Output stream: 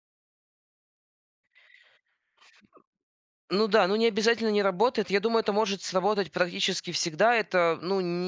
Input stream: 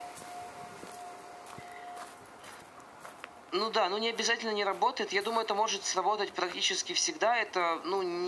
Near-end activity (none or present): none